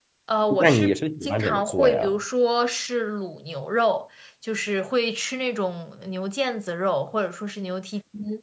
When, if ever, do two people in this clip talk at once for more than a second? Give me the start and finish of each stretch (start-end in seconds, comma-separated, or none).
0.6-2.1